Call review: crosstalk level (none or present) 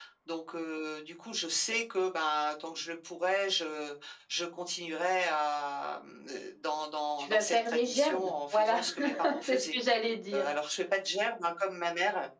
present